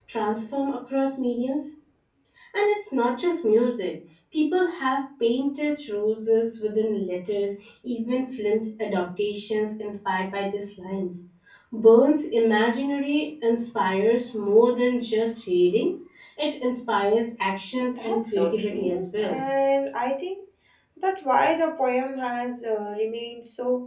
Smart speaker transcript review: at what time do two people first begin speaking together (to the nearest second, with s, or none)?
18 s